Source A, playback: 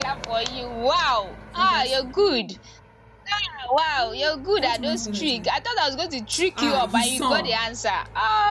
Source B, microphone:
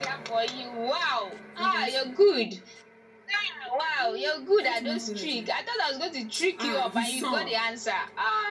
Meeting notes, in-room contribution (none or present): none